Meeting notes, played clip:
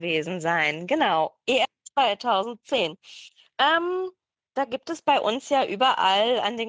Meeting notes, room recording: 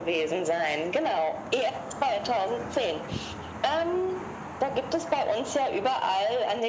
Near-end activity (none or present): none